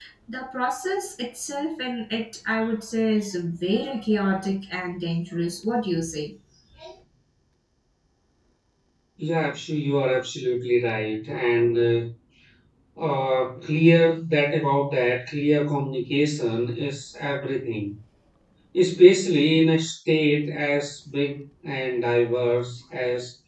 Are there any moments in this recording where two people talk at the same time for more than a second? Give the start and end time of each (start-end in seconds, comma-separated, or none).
none